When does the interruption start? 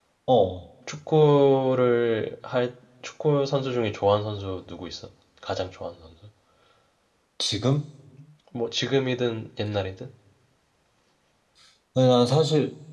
none

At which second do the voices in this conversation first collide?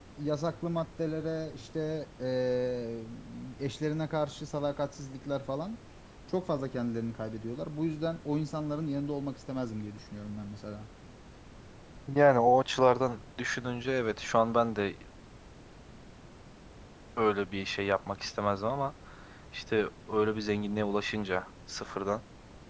none

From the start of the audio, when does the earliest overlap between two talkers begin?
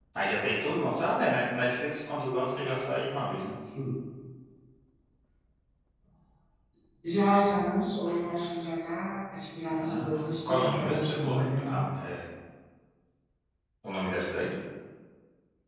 9.8 s

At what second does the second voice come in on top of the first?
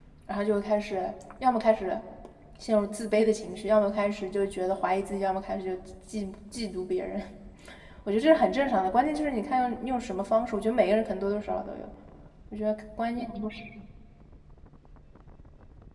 none

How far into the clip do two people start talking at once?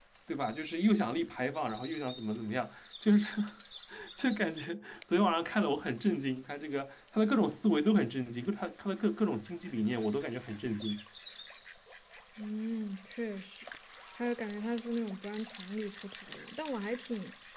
none

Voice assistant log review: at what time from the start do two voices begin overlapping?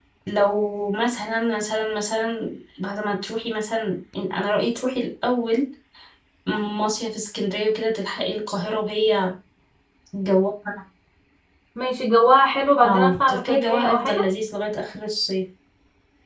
12.8 s

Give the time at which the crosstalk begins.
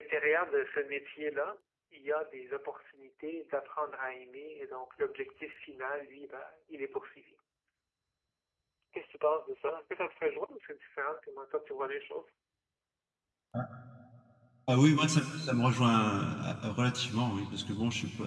none

